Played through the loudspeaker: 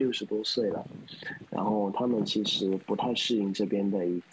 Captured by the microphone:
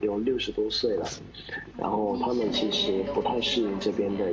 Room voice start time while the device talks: 1.7 s

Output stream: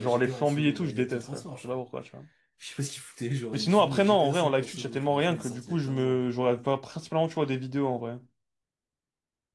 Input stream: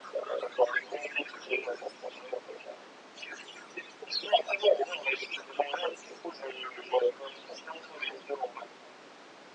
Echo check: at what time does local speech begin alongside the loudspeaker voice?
none

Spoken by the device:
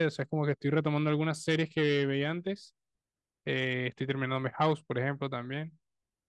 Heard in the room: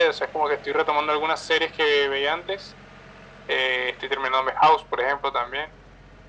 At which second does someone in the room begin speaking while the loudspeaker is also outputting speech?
none

